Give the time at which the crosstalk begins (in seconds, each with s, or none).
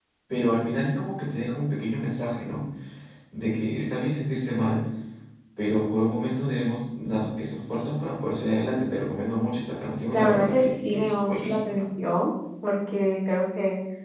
10.1 s